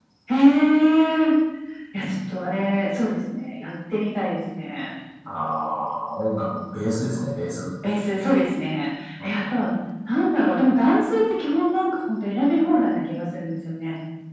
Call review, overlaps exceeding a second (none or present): none